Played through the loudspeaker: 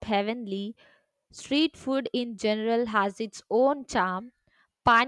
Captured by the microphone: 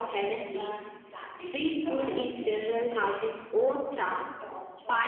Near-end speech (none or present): present